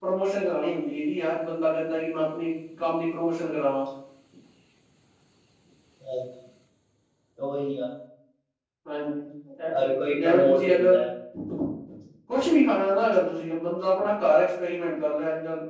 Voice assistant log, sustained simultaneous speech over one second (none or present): present